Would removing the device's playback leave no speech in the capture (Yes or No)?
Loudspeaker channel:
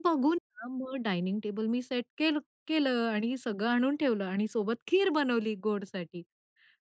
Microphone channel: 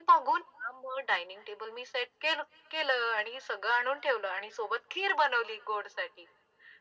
Yes